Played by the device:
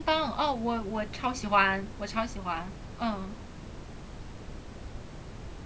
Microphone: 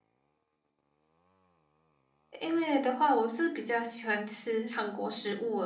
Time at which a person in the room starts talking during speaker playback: 2.4 s

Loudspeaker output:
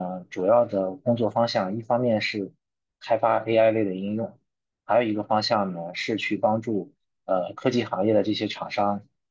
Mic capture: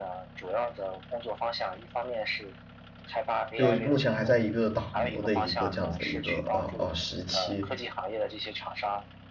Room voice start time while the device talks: 3.6 s

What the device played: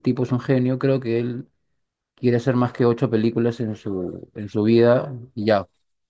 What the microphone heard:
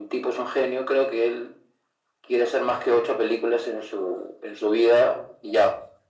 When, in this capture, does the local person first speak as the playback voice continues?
none

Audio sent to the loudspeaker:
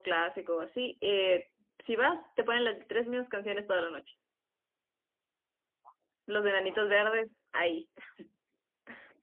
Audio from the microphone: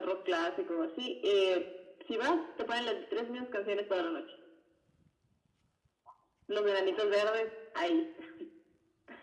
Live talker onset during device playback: none

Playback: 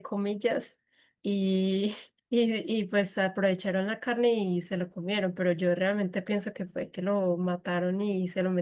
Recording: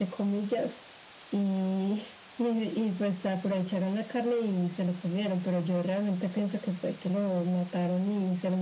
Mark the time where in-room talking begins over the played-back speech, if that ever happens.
none

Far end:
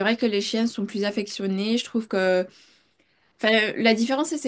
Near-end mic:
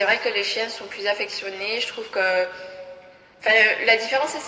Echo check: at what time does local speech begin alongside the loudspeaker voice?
none

